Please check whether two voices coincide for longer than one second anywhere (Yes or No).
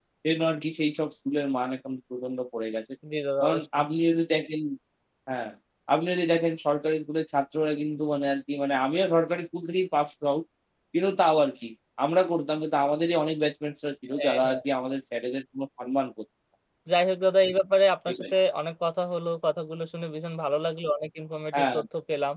No